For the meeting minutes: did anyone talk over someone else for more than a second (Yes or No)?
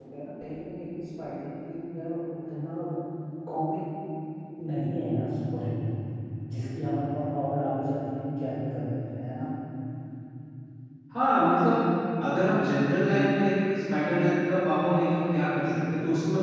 No